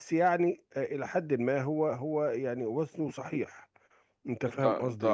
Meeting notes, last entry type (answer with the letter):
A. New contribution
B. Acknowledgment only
A